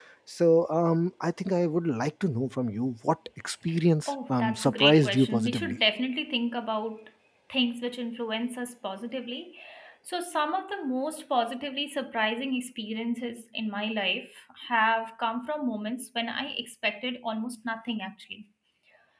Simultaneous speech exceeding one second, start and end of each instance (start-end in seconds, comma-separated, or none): 4.1-5.8